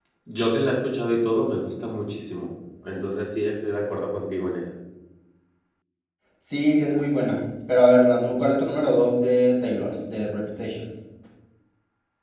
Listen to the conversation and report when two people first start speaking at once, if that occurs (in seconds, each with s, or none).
none